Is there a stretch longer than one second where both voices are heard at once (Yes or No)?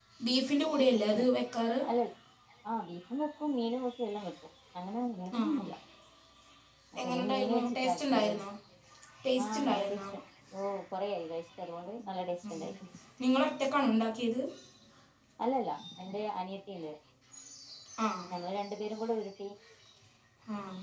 Yes